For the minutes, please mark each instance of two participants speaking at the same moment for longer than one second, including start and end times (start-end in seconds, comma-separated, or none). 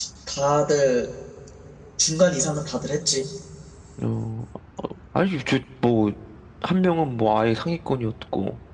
none